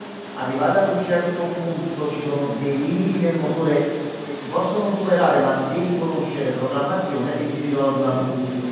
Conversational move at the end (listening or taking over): listening